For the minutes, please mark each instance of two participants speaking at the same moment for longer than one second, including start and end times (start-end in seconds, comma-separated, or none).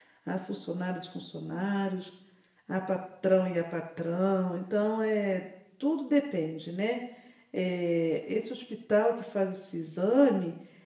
none